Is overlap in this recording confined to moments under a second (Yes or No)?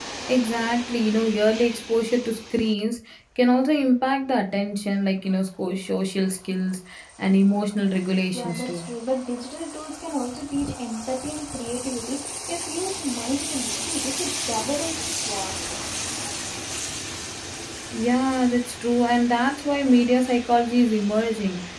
Yes